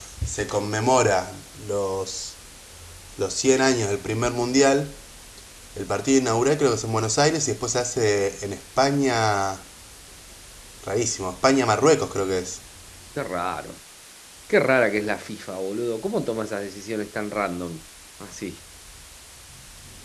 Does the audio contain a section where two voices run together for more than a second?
No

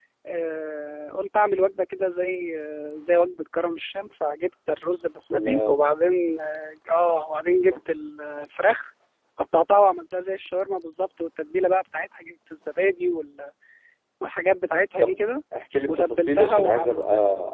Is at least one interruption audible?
Yes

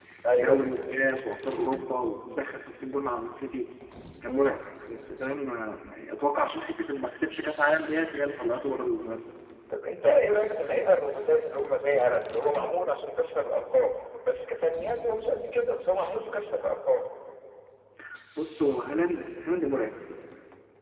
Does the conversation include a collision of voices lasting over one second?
No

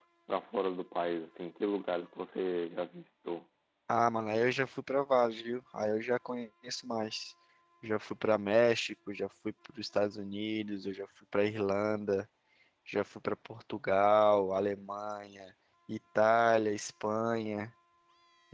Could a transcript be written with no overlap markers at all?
Yes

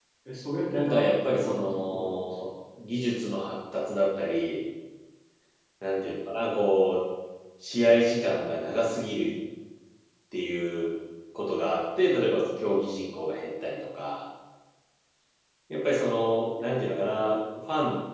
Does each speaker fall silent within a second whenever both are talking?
No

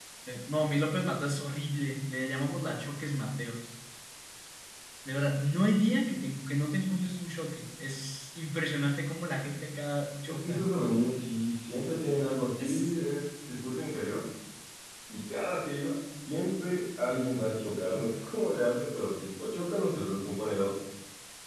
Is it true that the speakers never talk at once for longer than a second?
Yes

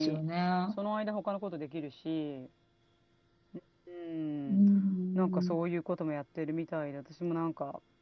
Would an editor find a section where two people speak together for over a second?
No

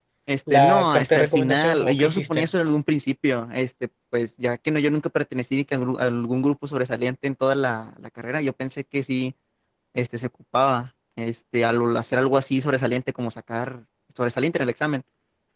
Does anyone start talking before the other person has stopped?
Yes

